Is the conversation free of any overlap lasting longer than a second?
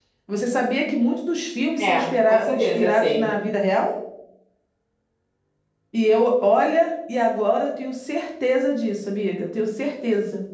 No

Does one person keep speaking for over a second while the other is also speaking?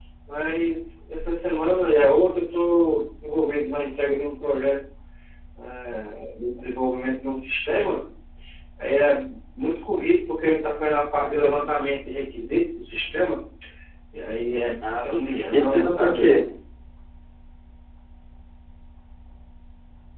Yes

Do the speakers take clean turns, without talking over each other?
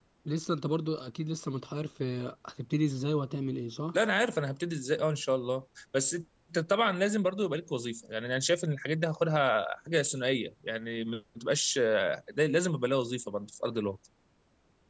Yes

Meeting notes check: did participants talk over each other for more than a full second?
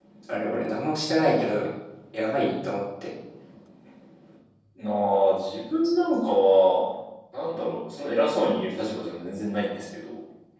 No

